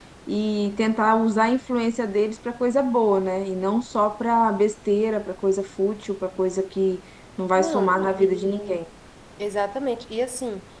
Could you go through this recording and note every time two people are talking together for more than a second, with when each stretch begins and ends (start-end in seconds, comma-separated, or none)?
7.6-8.8